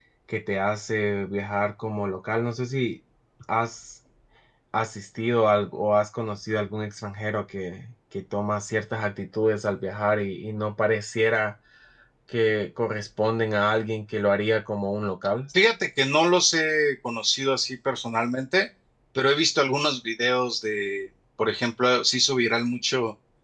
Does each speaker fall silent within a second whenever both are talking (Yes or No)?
Yes